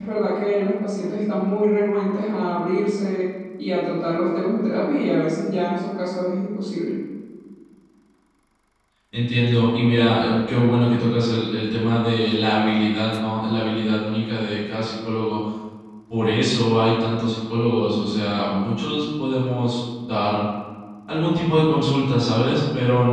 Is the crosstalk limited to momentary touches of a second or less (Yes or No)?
Yes